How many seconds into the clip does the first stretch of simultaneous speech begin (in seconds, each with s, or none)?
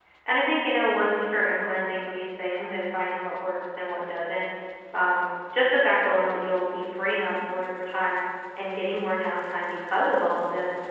none